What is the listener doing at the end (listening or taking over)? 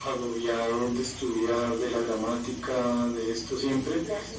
listening